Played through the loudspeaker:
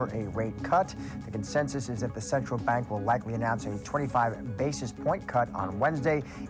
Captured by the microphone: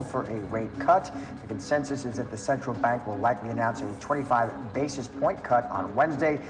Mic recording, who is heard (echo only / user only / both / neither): echo only